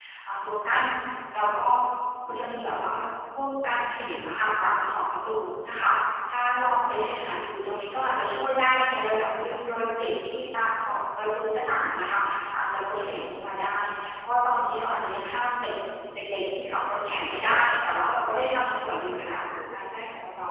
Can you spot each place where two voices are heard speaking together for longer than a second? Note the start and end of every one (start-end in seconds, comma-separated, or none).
none